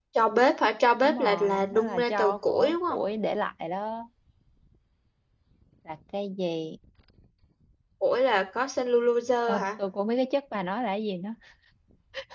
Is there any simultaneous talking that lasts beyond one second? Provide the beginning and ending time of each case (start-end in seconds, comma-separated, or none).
1.0-3.0